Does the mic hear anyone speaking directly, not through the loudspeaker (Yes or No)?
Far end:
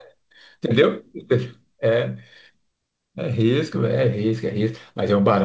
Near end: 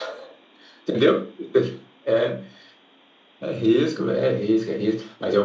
No